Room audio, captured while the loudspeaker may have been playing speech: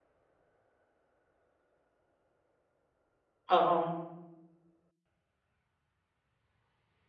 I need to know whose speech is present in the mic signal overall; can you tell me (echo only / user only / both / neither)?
user only